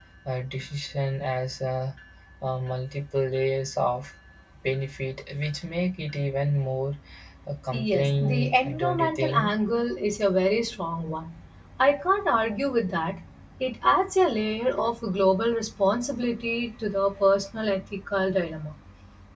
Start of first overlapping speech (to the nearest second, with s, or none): 8 s